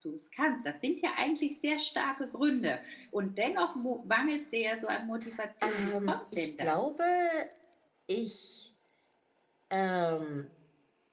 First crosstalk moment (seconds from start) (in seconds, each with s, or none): 5.6 s